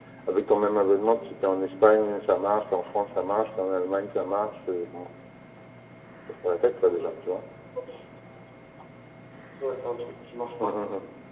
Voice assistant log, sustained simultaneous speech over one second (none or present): none